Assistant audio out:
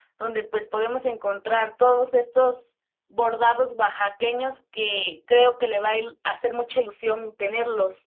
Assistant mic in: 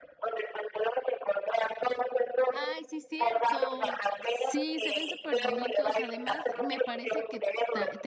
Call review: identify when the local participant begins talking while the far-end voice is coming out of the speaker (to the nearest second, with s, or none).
2 s